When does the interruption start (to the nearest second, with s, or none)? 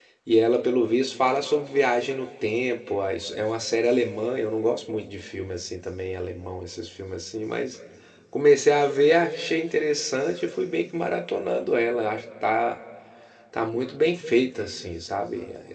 none